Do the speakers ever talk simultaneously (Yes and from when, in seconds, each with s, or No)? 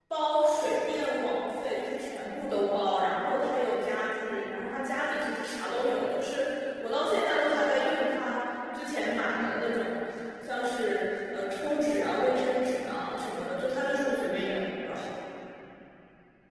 No